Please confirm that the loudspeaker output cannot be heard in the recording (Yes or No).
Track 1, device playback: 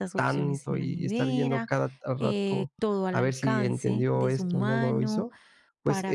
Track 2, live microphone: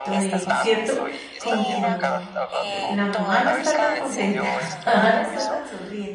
No